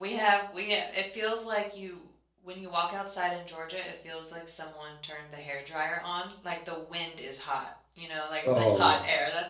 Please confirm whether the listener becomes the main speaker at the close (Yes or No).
No